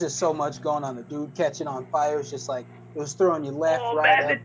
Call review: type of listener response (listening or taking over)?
taking over